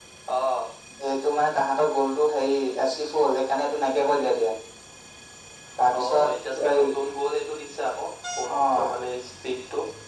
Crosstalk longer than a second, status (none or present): none